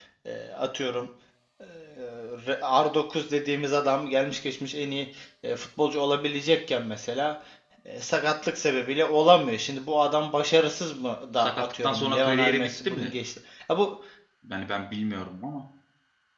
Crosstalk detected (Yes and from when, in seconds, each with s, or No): Yes, from 11.4 s